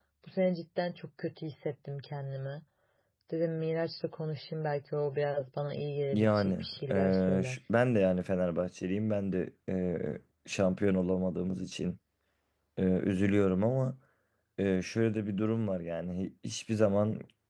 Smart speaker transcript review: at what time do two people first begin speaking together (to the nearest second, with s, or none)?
6 s